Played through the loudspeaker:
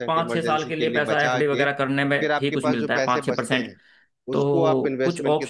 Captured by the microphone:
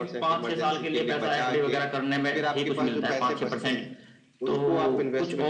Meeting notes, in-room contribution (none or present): none